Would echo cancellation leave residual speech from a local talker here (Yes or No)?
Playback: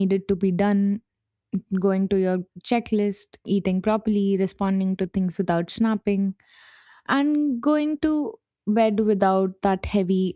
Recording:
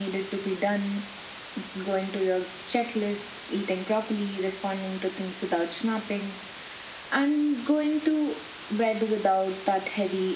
No